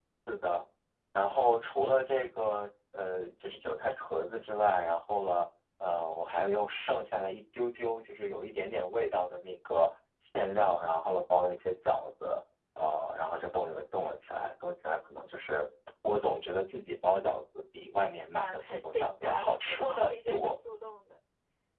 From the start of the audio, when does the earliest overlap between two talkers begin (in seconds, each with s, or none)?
18.3 s